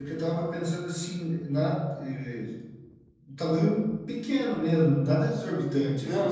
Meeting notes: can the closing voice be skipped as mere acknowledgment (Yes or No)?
No